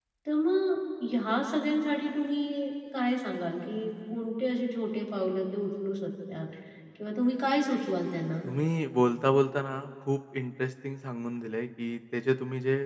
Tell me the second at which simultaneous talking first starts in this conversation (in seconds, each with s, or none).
none